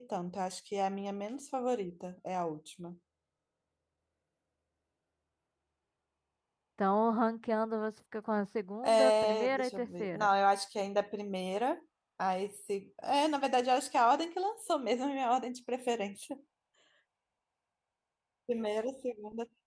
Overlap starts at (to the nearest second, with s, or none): 9 s